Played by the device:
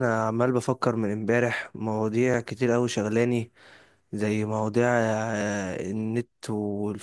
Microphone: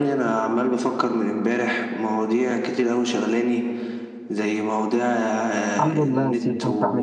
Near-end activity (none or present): present